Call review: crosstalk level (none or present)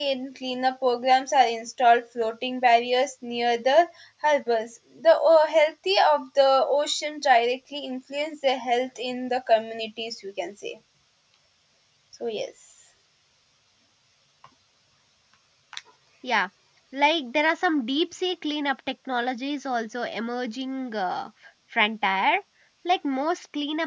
none